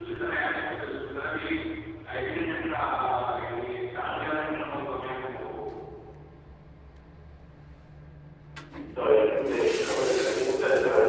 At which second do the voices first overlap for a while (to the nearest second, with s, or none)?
none